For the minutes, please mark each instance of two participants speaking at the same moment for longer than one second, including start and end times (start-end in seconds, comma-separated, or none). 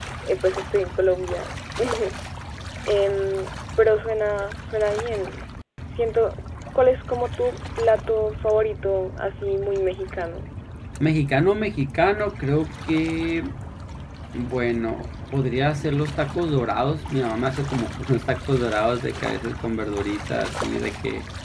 none